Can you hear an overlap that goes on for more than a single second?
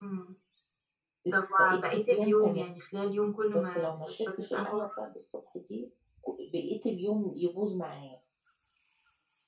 Yes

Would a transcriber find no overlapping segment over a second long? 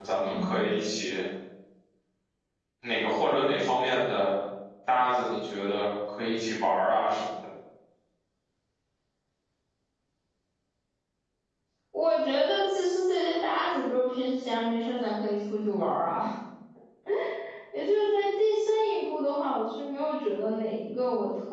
Yes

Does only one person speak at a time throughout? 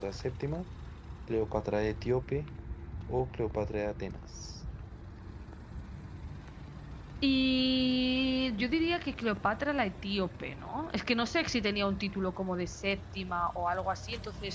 Yes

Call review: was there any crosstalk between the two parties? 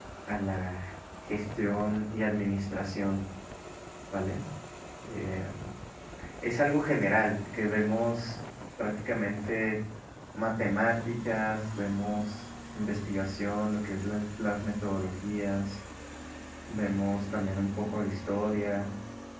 No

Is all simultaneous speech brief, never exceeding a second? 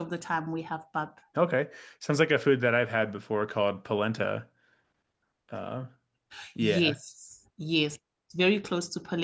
Yes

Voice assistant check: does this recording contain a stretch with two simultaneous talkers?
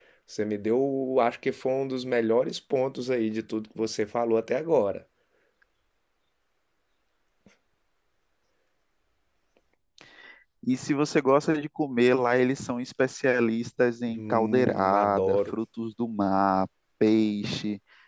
Yes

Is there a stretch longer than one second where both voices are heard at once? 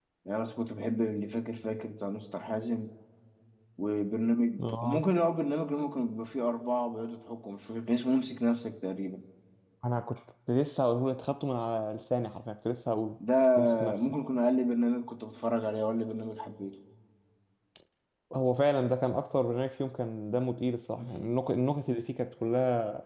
No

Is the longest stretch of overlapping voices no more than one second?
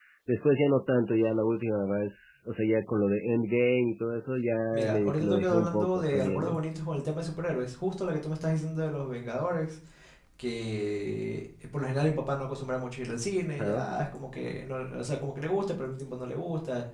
No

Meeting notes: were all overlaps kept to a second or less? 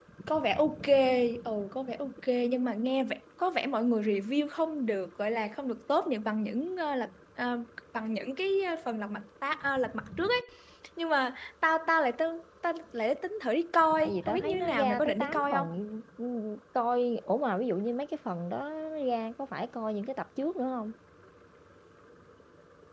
No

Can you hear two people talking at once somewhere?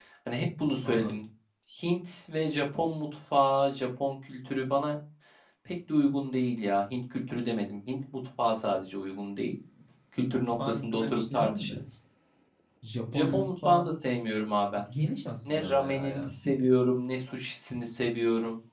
Yes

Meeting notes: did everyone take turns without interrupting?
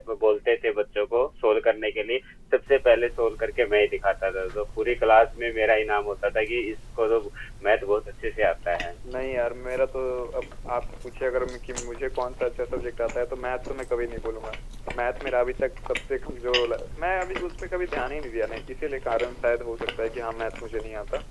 Yes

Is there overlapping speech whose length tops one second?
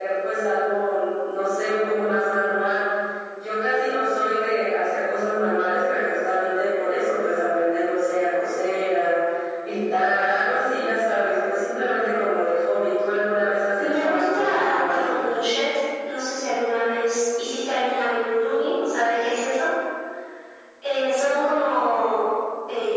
Yes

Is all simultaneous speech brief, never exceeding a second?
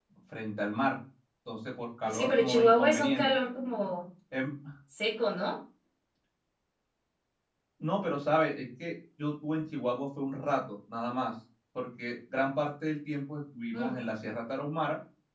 No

